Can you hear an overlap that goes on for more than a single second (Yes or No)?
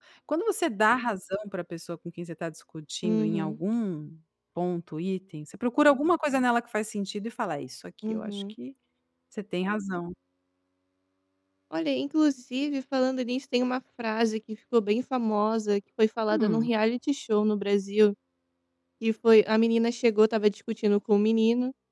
No